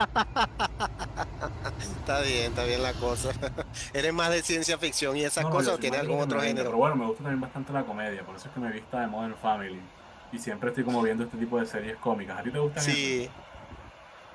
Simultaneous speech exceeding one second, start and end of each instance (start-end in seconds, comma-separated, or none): 5.4-6.7